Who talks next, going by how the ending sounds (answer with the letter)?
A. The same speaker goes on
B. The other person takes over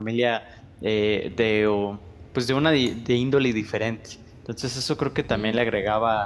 A